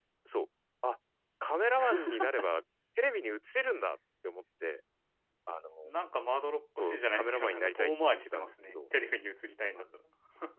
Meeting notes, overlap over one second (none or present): present